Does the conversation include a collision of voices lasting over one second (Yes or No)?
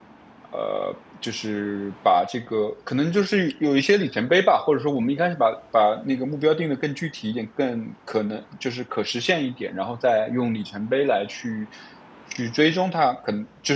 No